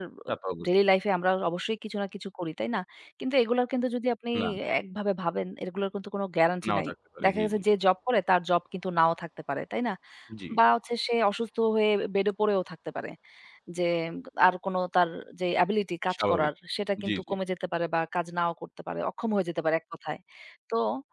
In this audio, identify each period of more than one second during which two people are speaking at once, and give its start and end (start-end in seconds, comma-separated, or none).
none